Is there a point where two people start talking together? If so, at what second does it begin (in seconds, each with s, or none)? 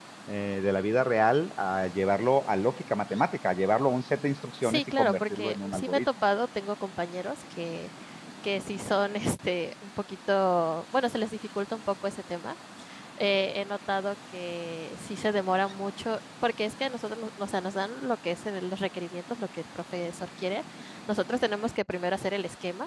4.6 s